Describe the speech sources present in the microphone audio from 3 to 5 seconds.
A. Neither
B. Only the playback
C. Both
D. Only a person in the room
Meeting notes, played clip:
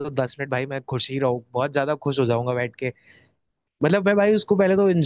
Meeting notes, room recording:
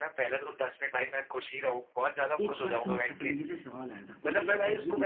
C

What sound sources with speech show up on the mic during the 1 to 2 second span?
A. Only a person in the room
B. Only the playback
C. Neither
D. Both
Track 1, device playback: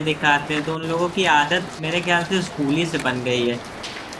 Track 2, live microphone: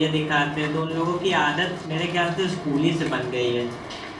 B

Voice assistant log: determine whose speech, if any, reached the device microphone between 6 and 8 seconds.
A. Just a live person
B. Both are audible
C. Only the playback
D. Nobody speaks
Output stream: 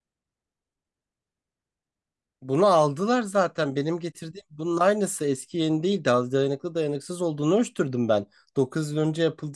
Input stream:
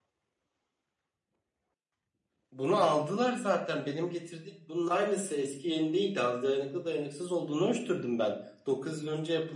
C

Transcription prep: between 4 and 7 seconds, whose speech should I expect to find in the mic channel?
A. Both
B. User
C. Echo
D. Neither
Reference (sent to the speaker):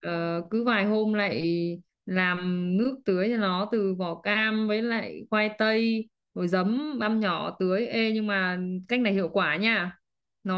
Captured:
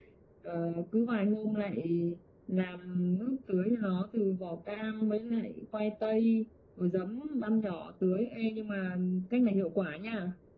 C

